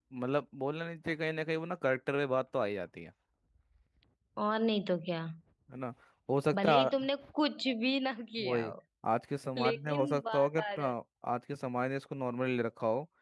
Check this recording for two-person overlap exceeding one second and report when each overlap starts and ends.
9.6-10.9

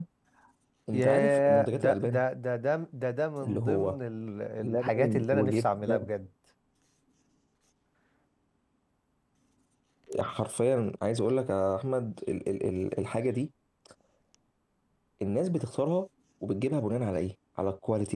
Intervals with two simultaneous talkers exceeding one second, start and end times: 0.9-2.2, 4.6-6.1

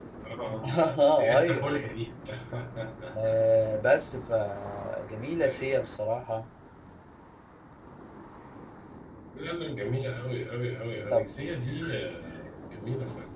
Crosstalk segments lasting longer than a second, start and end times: none

